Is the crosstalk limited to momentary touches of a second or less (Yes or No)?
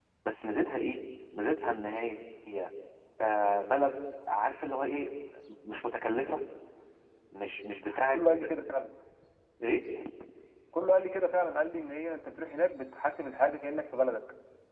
Yes